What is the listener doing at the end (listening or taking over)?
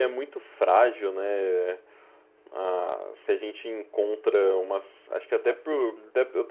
listening